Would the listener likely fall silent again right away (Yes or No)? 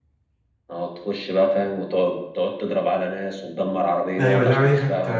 No